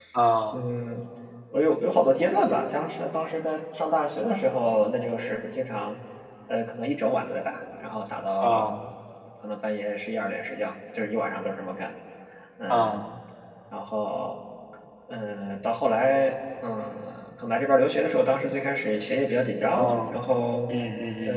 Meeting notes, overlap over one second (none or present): none